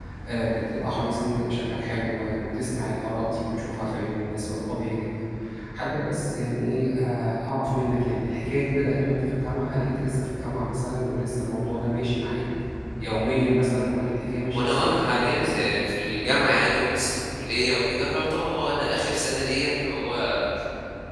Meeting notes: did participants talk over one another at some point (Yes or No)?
Yes